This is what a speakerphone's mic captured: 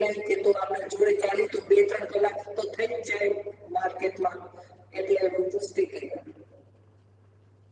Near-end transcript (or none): none